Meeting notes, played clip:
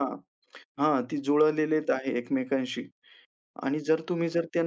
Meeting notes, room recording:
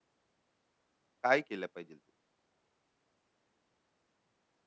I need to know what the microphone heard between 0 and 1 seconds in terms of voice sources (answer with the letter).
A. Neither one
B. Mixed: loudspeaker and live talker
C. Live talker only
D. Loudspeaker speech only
A